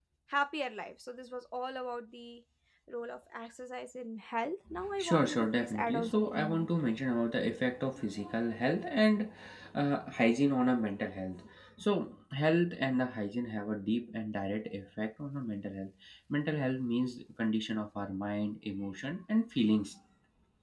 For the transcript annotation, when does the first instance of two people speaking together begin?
5 s

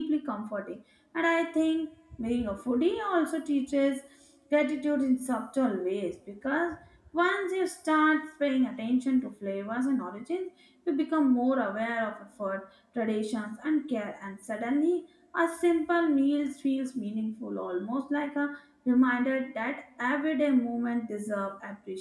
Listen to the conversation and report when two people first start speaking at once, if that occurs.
none

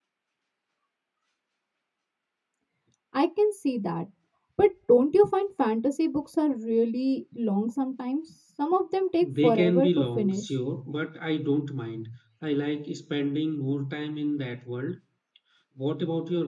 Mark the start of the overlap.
9 s

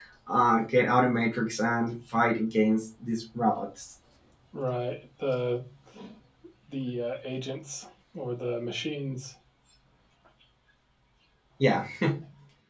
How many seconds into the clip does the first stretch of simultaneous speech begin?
none

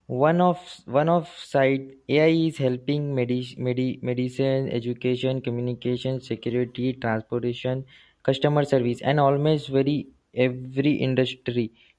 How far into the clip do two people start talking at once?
none

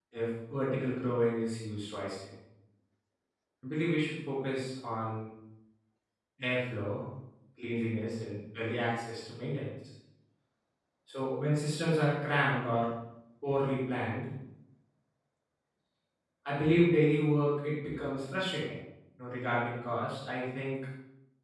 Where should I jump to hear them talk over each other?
none

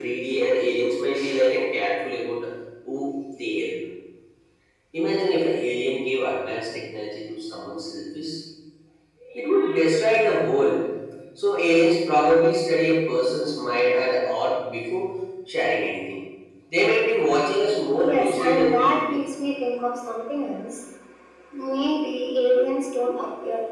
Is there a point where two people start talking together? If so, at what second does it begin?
18 s

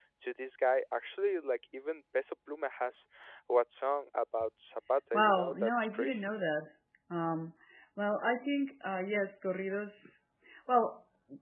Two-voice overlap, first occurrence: 5 s

